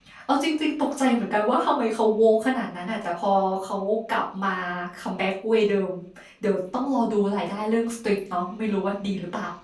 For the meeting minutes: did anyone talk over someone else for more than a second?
No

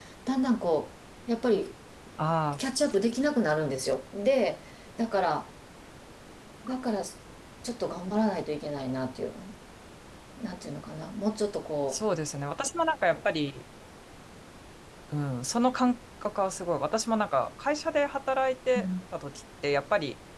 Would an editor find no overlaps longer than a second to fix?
Yes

